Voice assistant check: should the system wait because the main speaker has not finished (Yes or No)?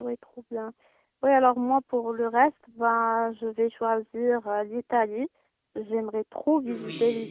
Yes